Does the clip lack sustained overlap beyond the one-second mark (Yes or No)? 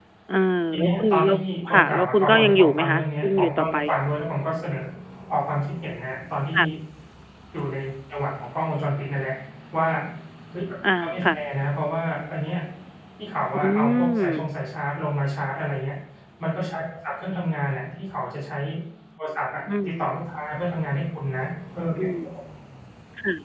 No